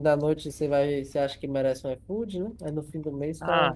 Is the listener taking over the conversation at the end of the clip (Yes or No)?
Yes